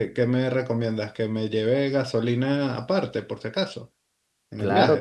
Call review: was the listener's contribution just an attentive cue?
No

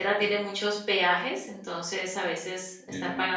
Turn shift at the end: No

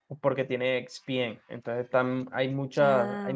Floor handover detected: No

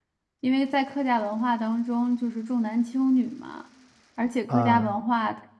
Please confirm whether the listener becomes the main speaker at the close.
No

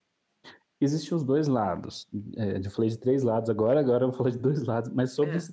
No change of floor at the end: Yes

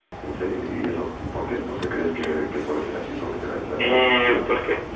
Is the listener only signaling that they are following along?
No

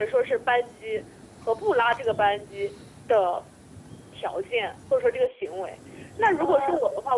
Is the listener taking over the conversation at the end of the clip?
No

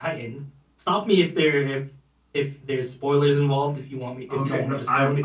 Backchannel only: No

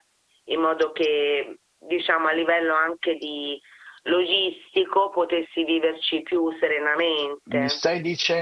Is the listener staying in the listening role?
No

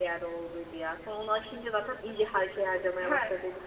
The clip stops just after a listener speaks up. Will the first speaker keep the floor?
No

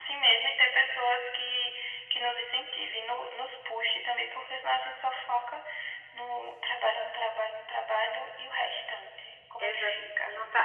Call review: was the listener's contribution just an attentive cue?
No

